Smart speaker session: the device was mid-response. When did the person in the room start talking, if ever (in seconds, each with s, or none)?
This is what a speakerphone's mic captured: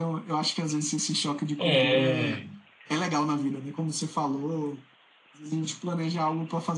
1.6 s